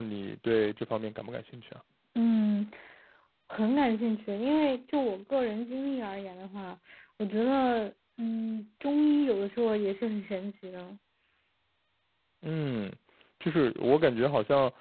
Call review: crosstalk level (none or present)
none